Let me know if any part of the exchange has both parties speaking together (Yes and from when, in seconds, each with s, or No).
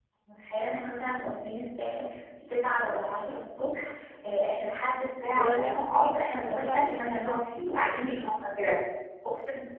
Yes, from 5.3 s